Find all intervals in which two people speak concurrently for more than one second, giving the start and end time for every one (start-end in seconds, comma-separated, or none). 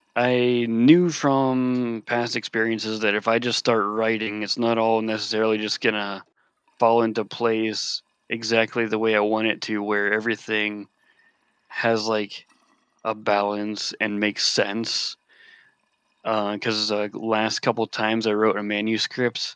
none